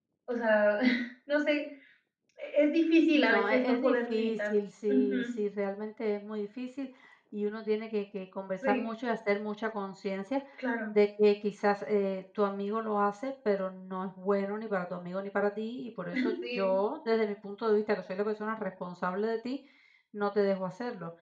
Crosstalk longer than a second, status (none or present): present